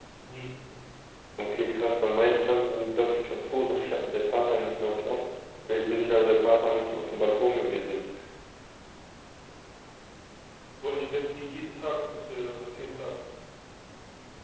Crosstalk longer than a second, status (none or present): none